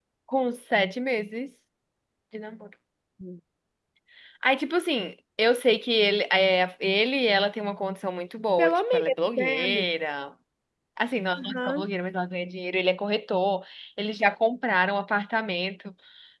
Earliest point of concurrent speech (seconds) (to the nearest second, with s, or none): 9 s